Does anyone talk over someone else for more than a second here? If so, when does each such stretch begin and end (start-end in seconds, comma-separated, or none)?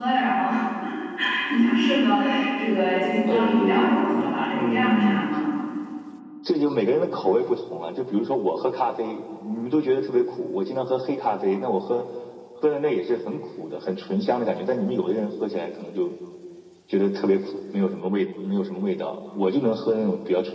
3.3-5.2